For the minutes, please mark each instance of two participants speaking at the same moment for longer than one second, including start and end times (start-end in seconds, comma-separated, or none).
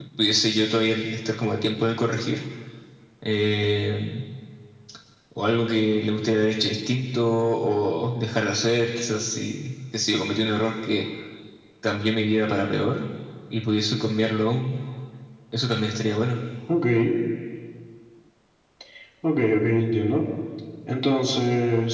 none